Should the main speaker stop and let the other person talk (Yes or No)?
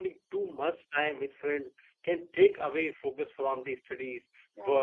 No